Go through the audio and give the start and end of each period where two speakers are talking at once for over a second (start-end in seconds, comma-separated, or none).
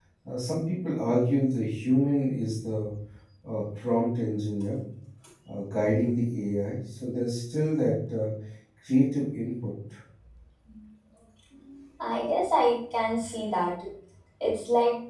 none